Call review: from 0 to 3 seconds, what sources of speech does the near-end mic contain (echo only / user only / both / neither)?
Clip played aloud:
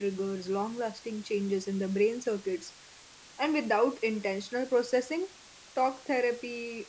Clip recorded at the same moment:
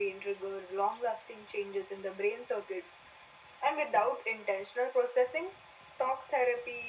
echo only